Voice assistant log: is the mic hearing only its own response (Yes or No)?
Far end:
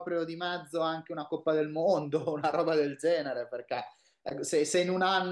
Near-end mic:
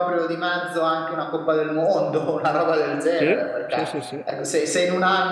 No